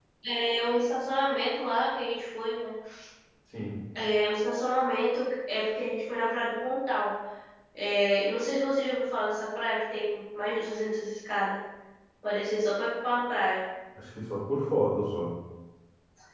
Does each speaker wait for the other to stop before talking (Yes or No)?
Yes